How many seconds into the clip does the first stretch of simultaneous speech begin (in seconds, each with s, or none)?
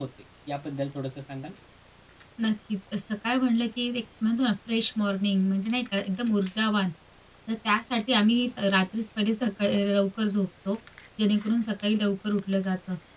none